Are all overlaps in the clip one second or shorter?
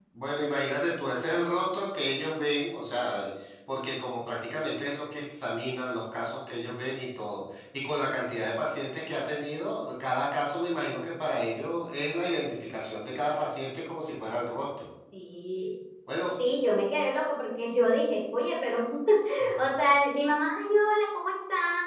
Yes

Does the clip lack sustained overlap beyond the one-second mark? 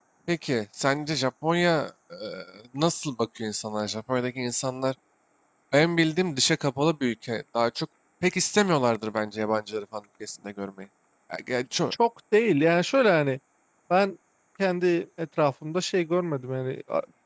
Yes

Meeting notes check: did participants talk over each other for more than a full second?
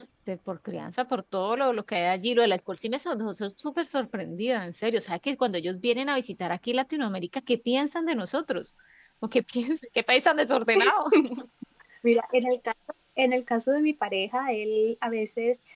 No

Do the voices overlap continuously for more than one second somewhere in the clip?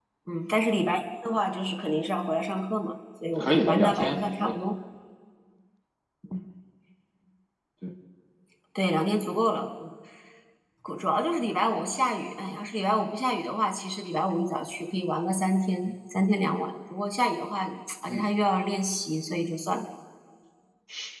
Yes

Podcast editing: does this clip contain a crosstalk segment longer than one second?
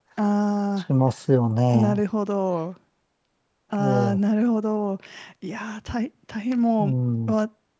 No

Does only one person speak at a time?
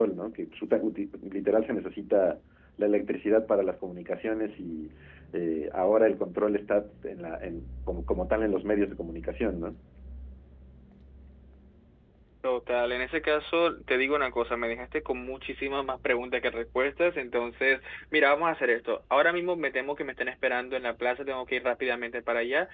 Yes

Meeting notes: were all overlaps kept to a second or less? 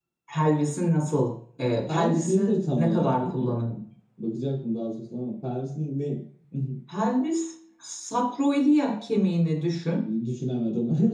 No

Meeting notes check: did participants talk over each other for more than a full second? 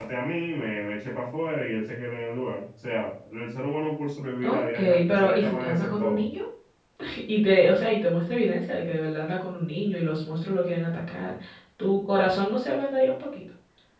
Yes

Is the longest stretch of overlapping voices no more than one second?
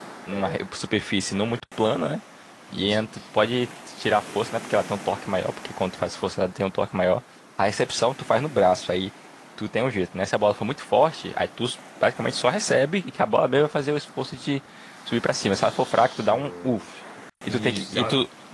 No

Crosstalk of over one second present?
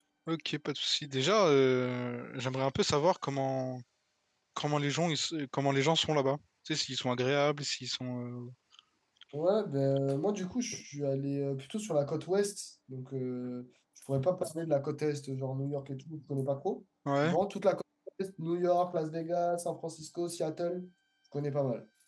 No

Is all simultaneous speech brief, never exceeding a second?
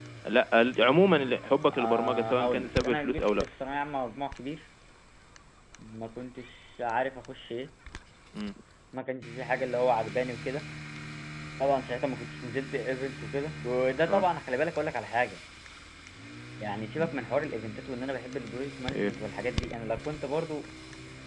No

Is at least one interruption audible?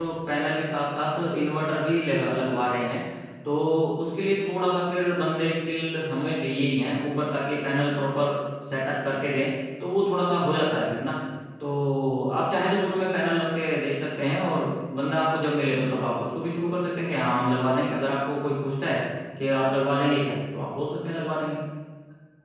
No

